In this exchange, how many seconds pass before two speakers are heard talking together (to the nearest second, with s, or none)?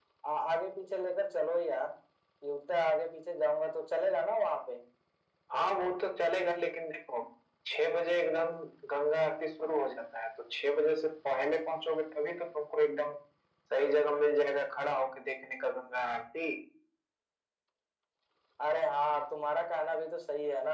none